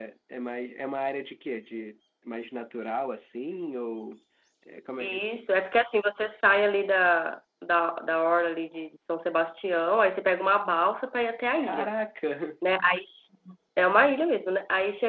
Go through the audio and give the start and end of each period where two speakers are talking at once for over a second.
none

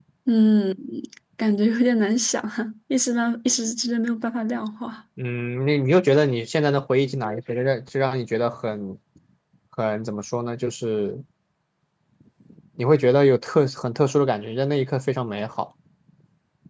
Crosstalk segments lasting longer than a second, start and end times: none

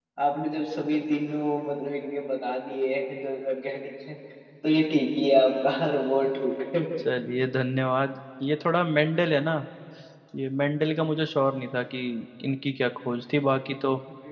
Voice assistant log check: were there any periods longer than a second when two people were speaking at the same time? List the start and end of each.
none

